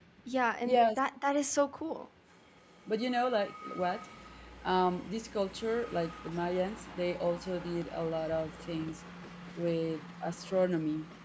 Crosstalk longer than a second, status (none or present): none